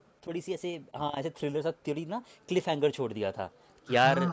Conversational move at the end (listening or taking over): listening